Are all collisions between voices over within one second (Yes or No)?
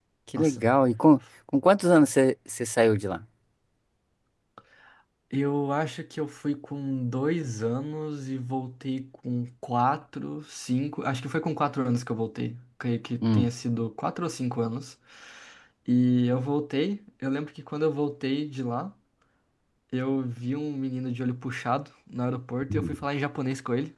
Yes